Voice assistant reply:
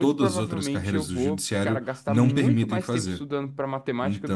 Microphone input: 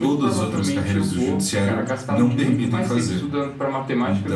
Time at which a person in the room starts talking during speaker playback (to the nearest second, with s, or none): none